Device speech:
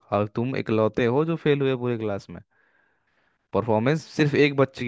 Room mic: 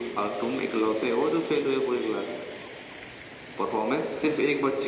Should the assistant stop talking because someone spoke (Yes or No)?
No